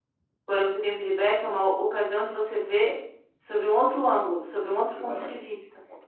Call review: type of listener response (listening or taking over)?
taking over